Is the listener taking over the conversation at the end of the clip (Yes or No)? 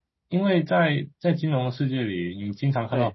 No